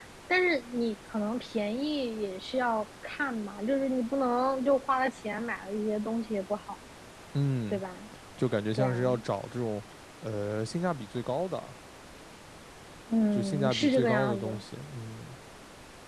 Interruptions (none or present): present